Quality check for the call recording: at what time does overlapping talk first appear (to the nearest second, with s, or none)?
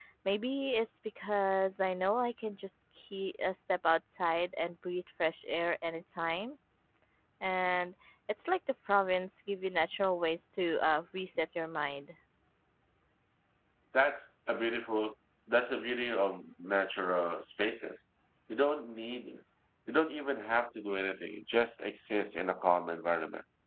none